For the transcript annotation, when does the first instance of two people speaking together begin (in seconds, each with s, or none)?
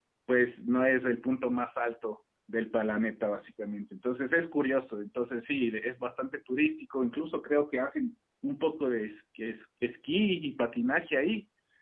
none